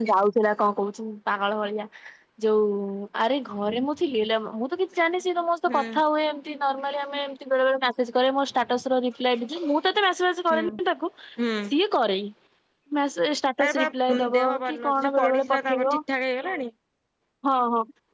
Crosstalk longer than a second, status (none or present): present